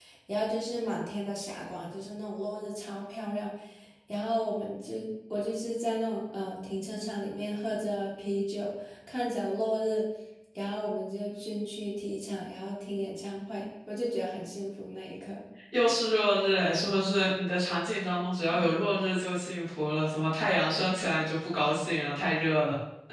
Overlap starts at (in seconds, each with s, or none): none